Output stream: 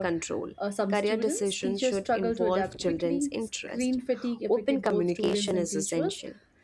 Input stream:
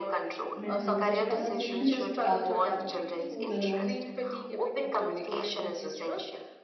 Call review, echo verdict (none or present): present